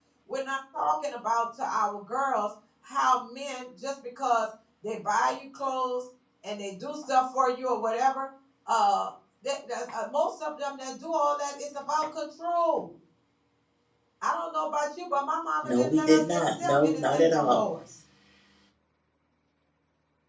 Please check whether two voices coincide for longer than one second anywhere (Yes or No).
Yes